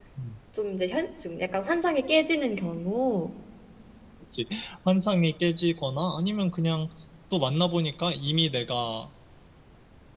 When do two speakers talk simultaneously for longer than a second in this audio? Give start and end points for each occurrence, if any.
none

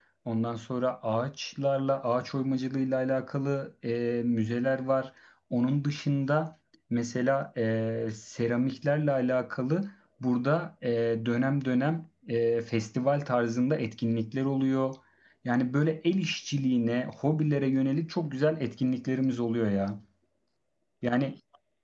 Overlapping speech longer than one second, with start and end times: none

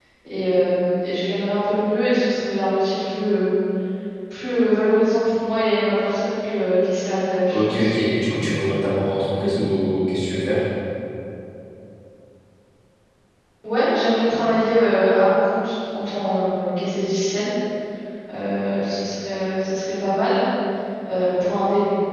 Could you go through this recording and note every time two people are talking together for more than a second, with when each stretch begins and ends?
none

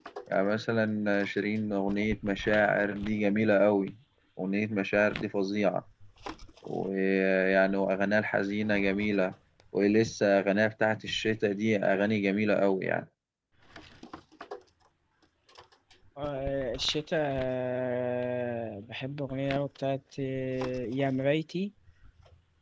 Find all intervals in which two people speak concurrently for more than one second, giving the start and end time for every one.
none

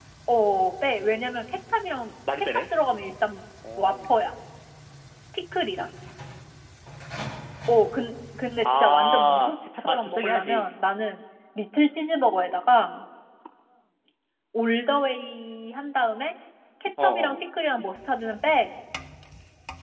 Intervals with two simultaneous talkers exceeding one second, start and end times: 8.6-10.7

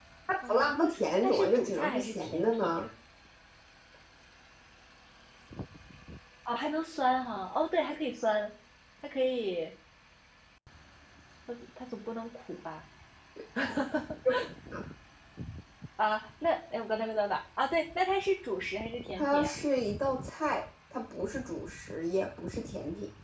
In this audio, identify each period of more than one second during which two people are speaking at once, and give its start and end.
1.2-2.8

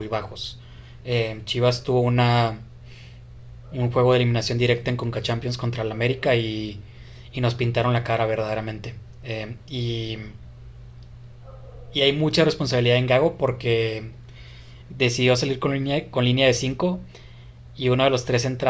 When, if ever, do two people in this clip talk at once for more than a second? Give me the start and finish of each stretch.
none

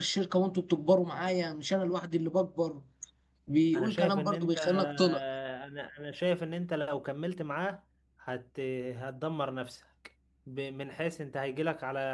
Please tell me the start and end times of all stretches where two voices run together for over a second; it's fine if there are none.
3.7-5.2

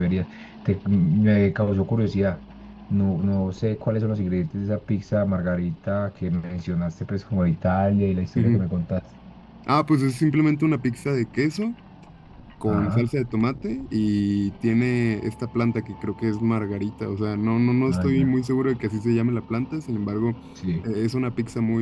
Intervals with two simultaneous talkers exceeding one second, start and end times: none

